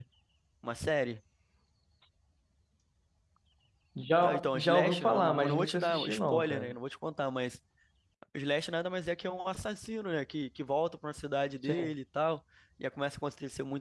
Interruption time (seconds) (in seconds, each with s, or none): 4.2 s